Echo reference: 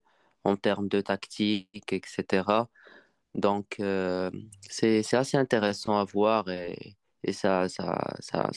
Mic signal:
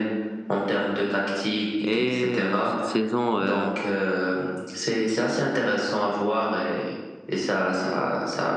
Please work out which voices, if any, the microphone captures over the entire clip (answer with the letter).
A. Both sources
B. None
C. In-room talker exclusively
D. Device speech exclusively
A